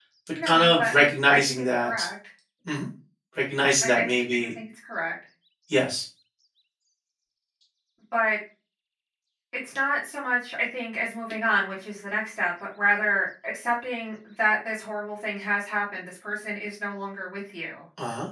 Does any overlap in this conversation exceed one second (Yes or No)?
Yes